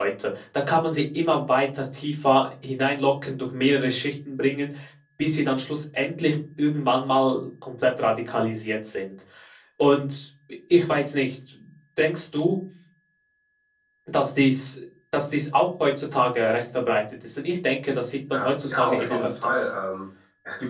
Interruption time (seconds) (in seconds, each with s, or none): 18.3 s